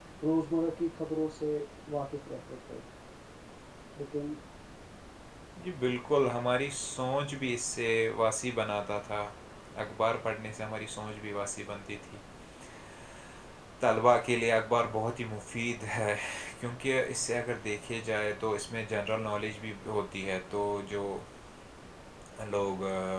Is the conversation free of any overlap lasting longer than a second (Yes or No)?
Yes